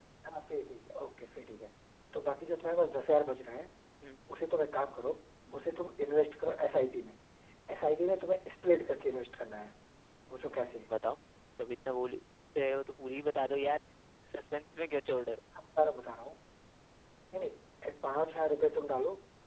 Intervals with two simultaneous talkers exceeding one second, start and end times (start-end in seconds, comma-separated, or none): none